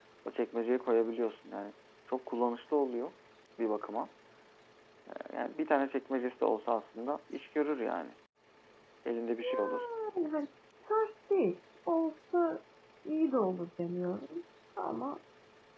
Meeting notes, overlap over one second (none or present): none